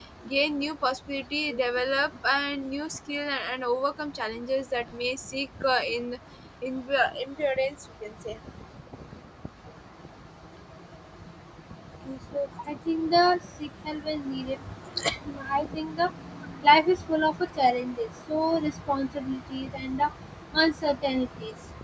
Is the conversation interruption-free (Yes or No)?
Yes